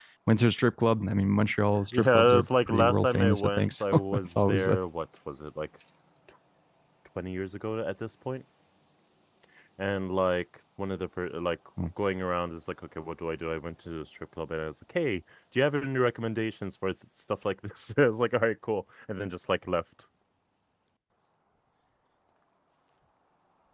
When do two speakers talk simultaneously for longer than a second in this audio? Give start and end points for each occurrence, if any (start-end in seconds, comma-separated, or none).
1.9-4.8